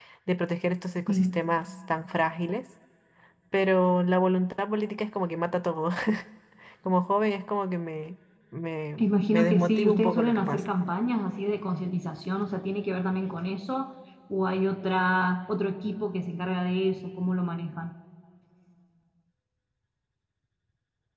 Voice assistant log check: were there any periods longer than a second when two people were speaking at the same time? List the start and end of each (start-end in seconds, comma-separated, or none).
9.0-10.6